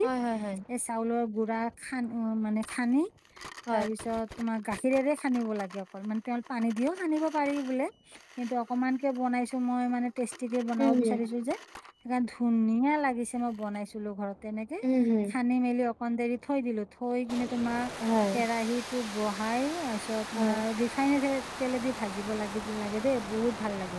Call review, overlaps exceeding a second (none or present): none